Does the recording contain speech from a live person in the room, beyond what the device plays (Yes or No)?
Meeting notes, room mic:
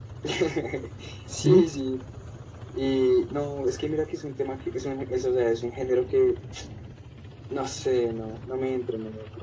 Yes